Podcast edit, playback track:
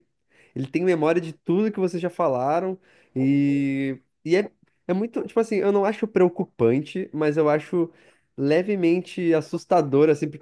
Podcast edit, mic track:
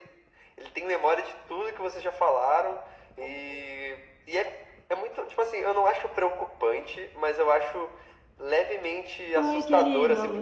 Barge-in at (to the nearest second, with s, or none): 9 s